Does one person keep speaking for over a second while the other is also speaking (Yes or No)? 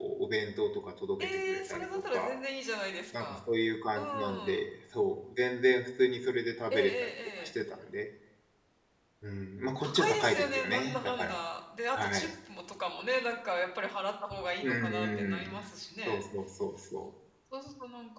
Yes